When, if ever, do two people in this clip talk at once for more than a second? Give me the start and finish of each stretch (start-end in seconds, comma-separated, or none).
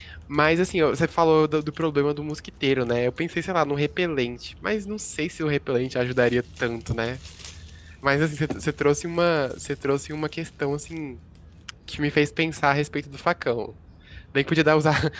none